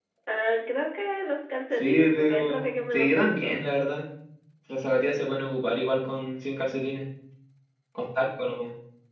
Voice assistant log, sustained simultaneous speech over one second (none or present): present